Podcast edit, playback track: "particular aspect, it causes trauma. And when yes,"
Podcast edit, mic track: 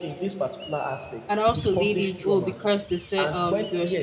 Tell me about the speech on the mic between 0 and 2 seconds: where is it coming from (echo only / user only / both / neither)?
both